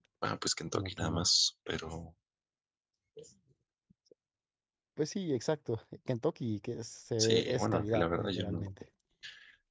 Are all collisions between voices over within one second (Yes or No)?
No